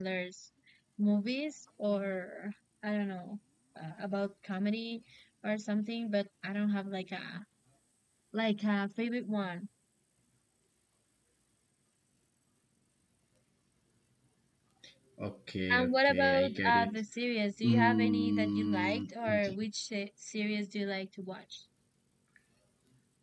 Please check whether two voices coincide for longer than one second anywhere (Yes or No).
Yes